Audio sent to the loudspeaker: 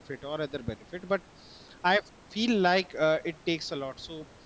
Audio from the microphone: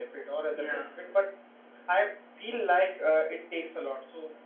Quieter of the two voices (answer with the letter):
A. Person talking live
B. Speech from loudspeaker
A